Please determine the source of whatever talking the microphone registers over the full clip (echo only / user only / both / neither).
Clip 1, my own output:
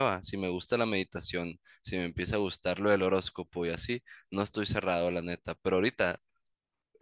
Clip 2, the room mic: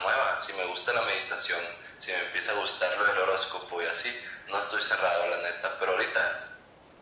echo only